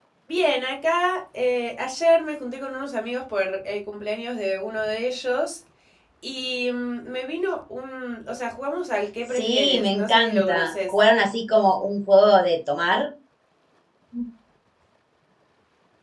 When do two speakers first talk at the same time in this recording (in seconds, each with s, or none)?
9.3 s